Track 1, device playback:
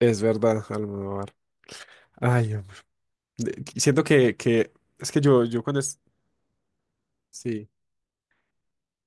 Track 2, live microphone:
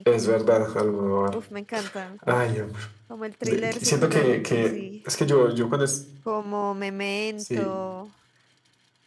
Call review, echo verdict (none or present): present